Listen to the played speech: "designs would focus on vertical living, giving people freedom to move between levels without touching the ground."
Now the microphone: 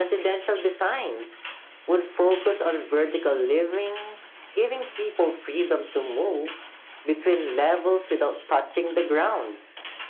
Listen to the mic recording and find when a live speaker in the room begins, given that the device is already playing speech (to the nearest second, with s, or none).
none